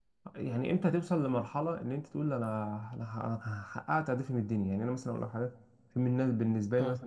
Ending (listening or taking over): listening